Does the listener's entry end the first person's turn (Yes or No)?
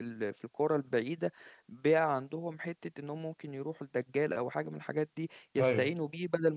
No